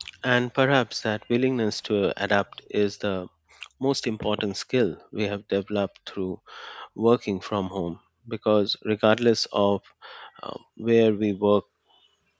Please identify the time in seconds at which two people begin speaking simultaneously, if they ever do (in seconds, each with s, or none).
none